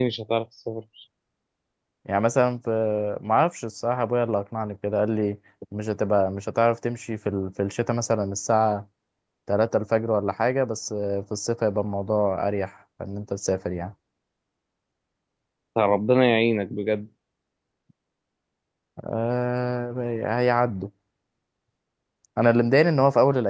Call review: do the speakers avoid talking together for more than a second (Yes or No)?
Yes